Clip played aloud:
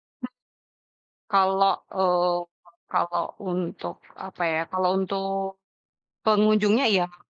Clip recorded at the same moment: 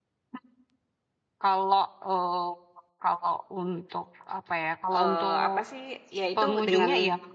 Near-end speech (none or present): present